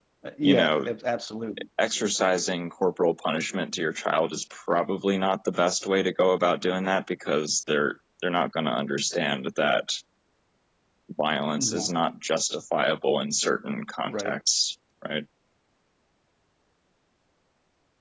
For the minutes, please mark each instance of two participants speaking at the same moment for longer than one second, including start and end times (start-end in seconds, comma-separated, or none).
none